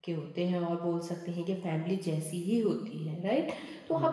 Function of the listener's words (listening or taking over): listening